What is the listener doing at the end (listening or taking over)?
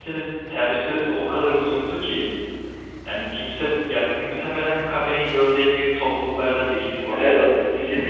taking over